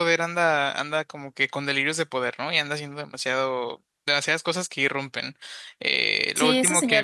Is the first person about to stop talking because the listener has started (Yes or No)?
Yes